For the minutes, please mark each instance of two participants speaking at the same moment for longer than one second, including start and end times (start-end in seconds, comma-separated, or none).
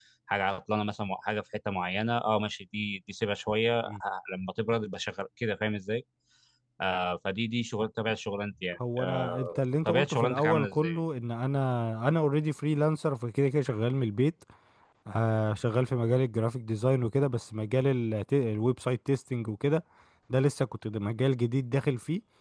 9.0-11.0